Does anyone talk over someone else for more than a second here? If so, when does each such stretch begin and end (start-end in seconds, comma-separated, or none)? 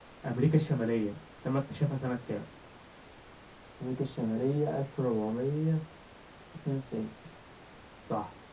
none